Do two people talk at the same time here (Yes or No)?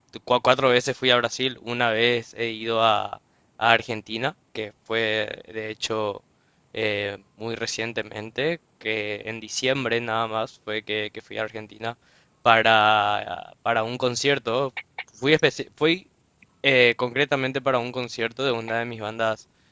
No